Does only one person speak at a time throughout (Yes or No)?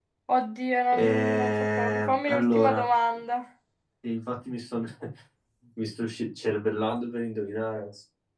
No